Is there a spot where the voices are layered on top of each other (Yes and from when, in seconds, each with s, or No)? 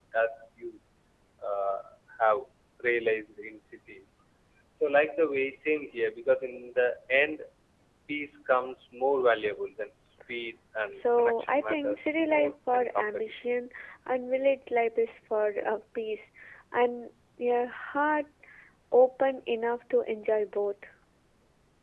Yes, from 10.9 s